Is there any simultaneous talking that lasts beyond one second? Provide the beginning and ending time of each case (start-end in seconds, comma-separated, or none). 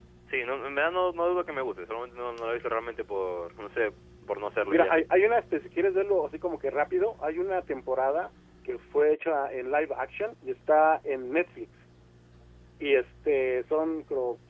none